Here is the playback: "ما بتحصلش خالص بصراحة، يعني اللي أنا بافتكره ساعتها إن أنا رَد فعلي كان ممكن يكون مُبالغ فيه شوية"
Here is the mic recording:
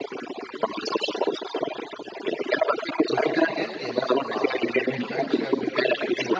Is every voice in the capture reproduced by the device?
No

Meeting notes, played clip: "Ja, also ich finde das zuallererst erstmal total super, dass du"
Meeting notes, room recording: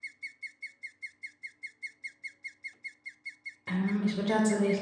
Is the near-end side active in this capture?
Yes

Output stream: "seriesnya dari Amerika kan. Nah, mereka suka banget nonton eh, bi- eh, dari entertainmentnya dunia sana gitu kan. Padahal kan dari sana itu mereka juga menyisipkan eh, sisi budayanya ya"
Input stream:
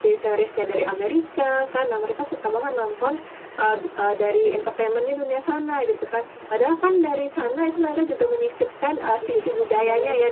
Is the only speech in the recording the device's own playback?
No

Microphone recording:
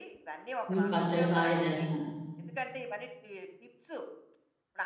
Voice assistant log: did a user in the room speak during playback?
Yes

